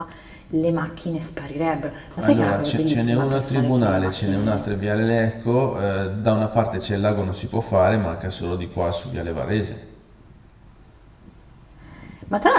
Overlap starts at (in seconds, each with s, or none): 2.2 s